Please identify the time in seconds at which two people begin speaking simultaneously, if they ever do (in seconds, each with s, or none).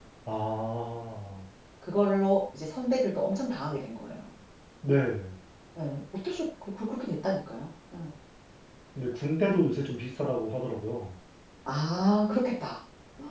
none